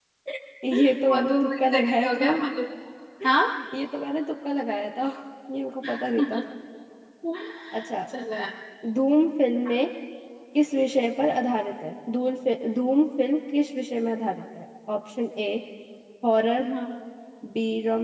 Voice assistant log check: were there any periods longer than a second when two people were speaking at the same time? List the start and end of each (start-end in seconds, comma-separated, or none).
1.1-2.3